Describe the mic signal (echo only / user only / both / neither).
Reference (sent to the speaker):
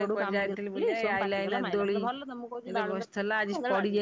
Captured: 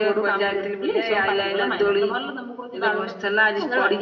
echo only